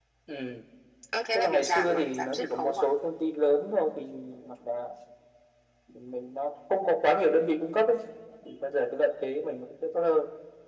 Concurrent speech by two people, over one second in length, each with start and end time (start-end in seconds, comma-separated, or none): 1.3-2.8